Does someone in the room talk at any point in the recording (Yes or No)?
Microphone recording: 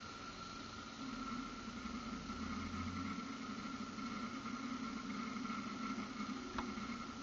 No